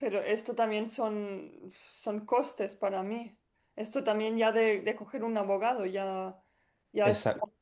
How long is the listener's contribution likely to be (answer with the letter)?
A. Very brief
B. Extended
A